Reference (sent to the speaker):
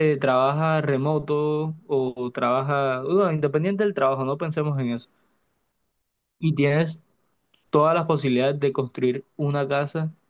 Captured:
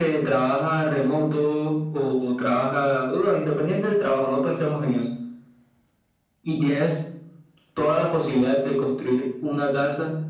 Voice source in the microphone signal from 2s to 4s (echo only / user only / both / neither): echo only